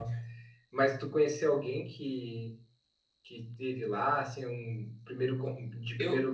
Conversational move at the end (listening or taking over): listening